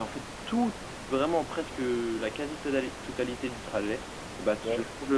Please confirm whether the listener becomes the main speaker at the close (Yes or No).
No